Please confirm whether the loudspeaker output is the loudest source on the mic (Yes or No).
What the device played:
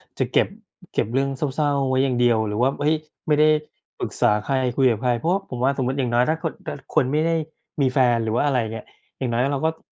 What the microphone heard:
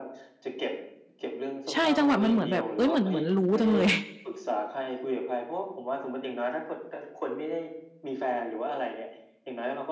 No